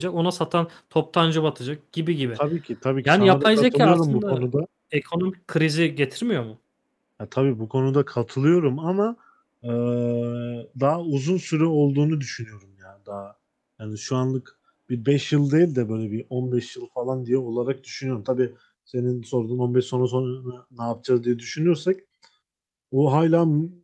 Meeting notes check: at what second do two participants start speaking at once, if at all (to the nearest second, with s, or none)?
3 s